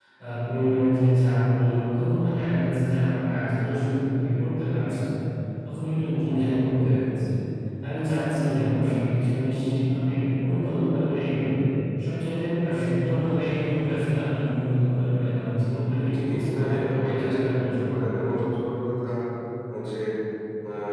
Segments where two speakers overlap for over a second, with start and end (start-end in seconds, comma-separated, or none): 15.9-18.3